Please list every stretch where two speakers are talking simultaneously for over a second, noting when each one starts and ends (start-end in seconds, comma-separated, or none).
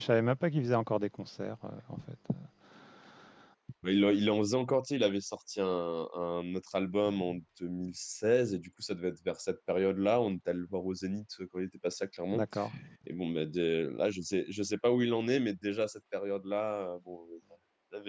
none